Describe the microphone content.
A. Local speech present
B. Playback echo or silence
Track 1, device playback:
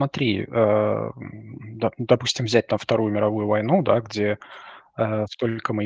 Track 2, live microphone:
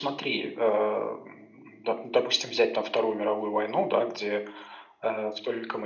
B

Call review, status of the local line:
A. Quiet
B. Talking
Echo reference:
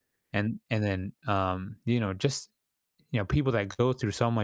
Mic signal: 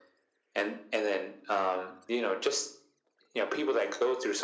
A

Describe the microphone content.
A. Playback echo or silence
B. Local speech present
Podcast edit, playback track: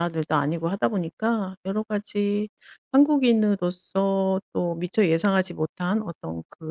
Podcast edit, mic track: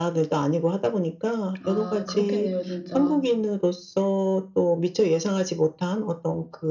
B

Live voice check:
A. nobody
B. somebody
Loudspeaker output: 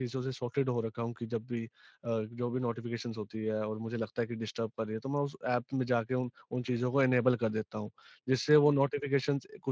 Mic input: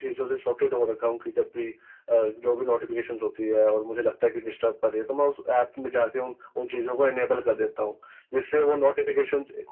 A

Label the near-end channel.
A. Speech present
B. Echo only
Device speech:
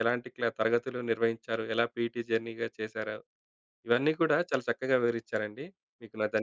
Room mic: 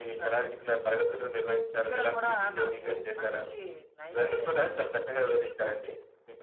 A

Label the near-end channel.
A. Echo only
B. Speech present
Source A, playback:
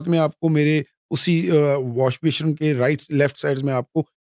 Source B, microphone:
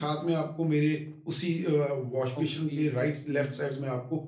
B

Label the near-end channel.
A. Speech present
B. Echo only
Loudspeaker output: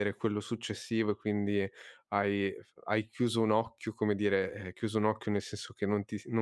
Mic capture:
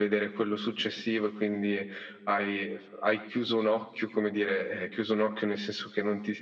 B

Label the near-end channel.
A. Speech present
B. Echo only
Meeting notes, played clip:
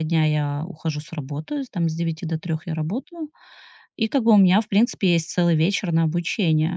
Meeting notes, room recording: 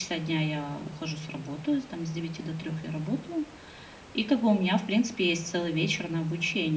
B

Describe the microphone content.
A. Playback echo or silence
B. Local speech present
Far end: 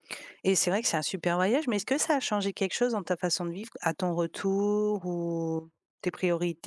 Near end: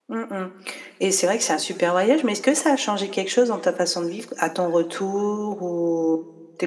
A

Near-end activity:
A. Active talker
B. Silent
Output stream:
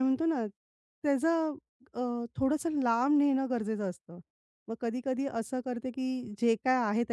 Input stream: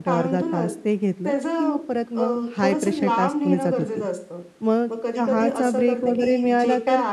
A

